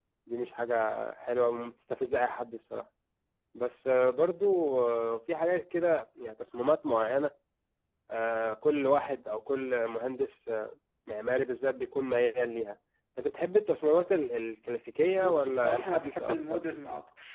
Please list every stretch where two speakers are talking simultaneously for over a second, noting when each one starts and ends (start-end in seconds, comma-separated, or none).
15.2-16.6